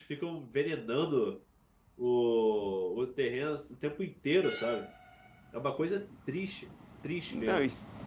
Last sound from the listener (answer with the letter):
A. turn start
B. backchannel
A